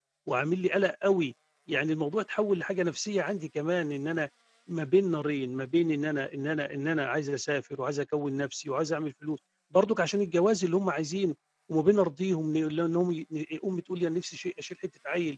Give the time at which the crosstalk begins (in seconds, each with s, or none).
none